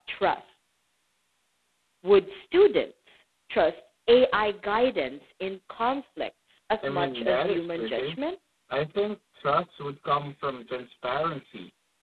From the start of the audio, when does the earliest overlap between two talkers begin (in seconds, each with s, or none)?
6.8 s